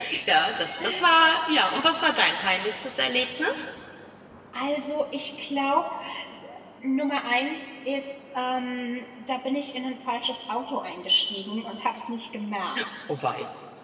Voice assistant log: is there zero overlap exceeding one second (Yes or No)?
Yes